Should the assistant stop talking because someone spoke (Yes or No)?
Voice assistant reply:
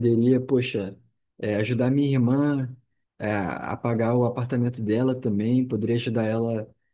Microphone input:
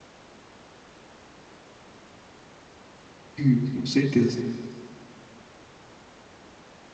Yes